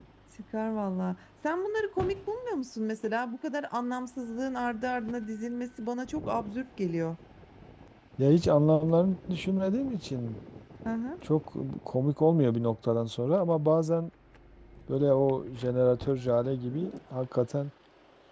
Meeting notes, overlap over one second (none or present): none